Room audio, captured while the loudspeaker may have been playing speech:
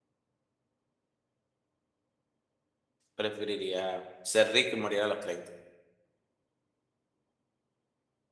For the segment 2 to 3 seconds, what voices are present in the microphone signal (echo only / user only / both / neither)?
neither